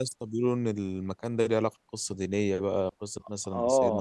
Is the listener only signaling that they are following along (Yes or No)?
No